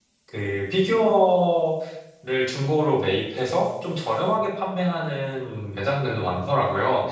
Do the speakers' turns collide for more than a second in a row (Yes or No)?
No